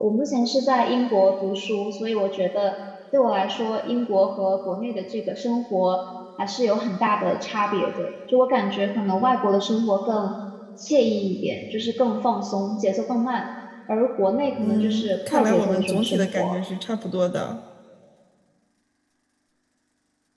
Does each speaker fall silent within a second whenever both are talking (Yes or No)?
No